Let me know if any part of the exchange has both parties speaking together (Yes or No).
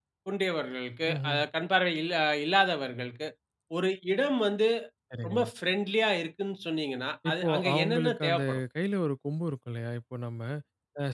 Yes